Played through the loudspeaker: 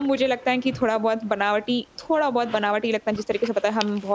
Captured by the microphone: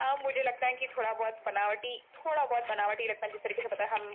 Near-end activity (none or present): none